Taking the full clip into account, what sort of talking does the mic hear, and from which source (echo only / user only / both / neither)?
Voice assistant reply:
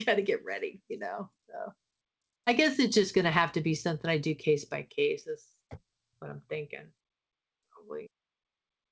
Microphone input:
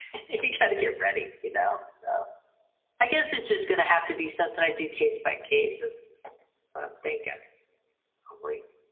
echo only